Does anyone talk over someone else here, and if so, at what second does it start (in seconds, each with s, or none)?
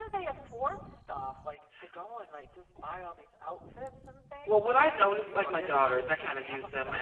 4.5 s